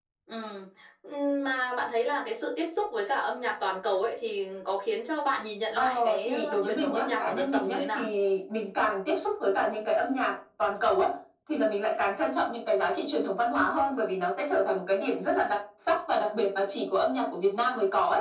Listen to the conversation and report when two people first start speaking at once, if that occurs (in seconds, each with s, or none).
5.8 s